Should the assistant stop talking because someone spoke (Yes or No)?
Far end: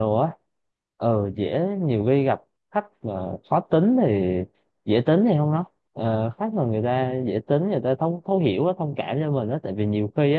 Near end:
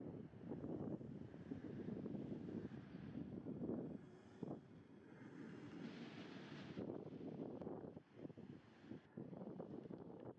No